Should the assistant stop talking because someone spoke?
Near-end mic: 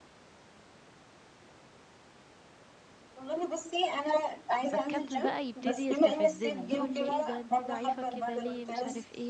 Yes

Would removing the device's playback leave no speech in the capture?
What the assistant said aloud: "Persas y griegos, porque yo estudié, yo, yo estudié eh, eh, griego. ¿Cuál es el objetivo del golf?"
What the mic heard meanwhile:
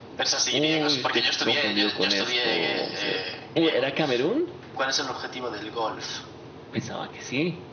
No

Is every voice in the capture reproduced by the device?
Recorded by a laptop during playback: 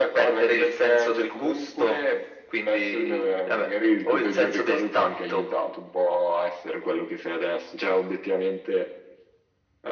Yes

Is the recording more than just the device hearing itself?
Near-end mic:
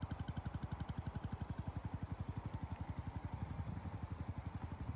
No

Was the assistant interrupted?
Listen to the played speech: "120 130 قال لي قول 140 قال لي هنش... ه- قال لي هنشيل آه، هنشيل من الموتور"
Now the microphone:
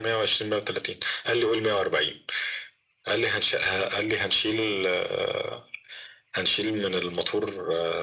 No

